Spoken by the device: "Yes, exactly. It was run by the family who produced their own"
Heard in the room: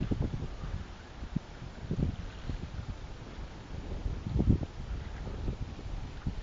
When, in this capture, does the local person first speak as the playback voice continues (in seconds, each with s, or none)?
none